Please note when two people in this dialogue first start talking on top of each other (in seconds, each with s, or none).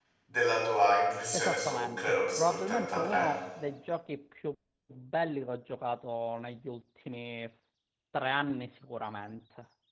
1.3 s